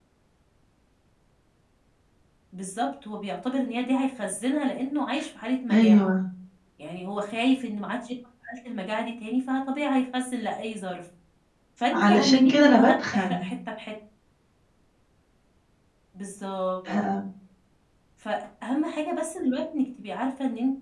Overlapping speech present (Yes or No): Yes